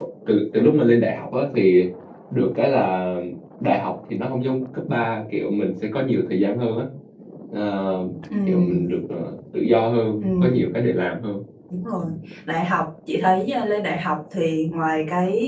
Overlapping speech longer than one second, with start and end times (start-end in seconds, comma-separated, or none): none